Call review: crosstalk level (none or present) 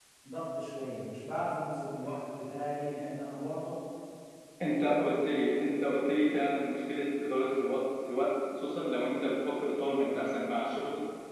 none